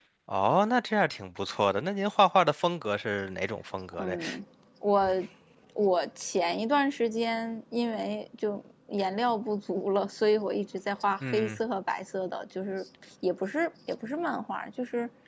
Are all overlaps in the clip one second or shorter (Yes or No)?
Yes